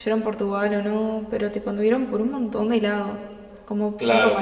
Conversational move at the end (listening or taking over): taking over